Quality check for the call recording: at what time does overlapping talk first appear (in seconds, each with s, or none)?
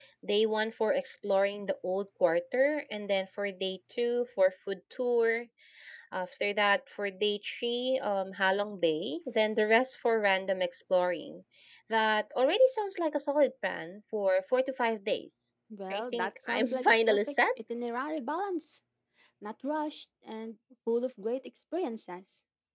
15.7 s